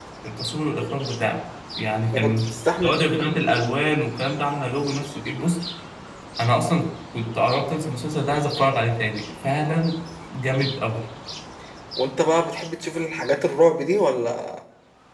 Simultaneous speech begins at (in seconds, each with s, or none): 2.1 s